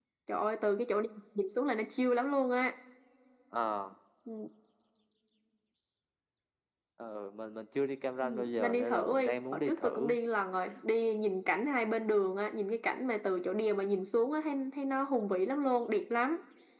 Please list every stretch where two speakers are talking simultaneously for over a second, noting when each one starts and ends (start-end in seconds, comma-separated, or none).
8.2-10.2